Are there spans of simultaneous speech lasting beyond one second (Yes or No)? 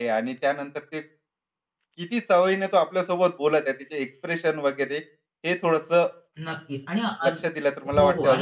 No